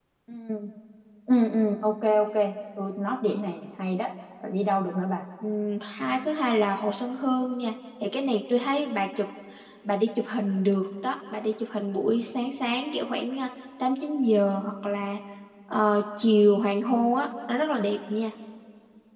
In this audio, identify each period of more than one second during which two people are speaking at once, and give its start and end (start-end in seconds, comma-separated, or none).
none